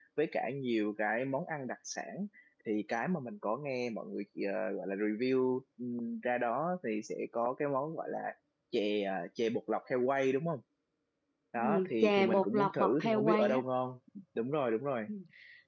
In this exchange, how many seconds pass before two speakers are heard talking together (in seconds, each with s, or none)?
11.6 s